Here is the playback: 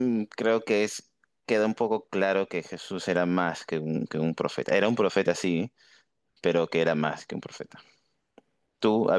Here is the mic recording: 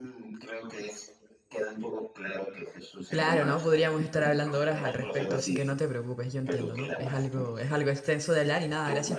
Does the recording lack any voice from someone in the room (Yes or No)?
No